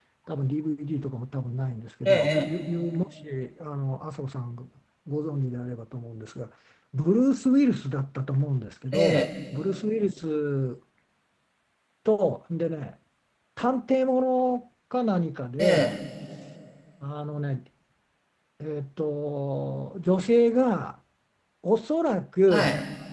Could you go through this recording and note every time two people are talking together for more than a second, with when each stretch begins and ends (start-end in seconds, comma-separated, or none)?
none